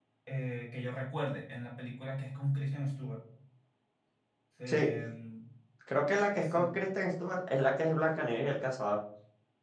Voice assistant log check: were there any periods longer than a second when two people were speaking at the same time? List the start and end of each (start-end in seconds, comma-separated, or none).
none